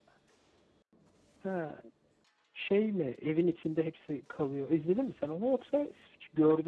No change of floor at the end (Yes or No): No